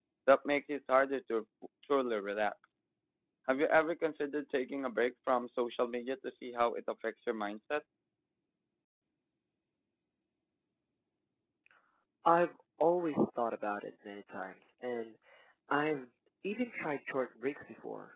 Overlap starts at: none

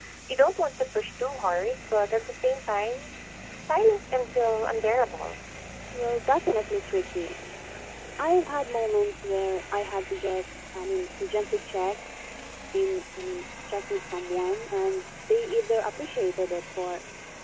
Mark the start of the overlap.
none

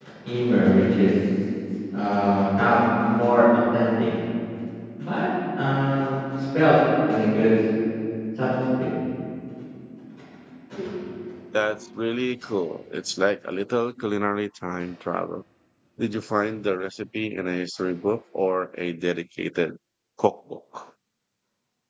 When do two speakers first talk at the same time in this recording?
none

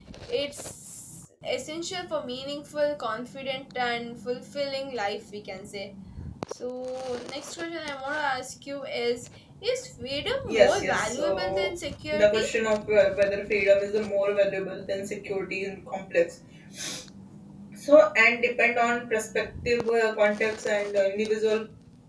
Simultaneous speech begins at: 10.5 s

